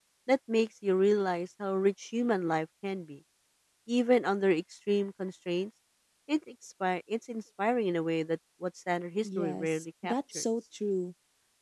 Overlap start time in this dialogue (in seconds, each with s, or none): 9.2 s